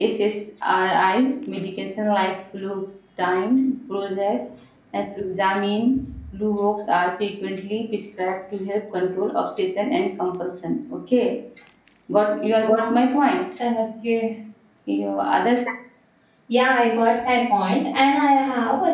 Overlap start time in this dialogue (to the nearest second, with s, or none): none